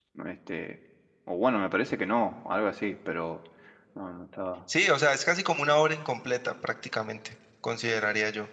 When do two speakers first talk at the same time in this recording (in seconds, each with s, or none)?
none